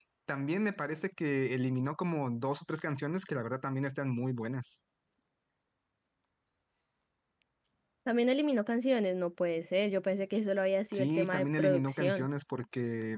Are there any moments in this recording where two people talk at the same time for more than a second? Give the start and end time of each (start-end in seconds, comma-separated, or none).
10.9-12.3